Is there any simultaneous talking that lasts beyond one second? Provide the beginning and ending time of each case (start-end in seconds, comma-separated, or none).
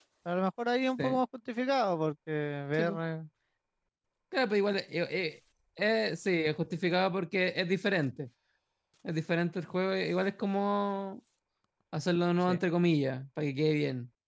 none